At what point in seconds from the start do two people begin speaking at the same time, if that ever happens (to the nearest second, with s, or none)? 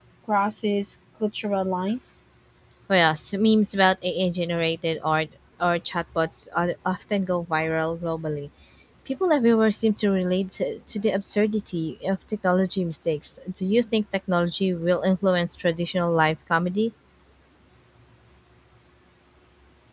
none